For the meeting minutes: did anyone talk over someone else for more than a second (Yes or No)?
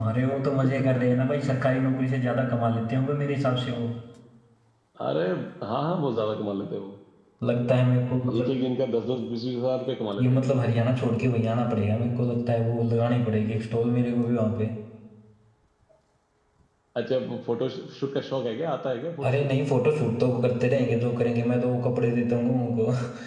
No